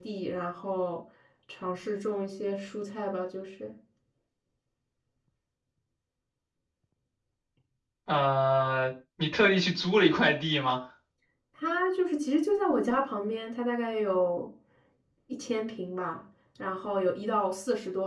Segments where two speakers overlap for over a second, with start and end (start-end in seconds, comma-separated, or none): none